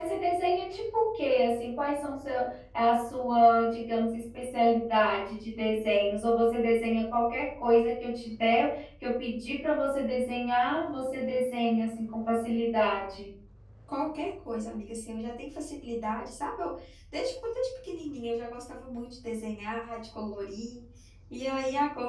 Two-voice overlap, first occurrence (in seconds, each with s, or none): none